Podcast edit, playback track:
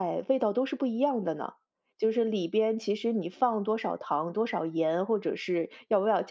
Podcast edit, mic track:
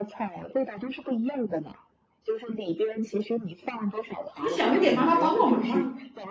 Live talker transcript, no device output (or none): 不是小时候给妈妈帮过忙吗？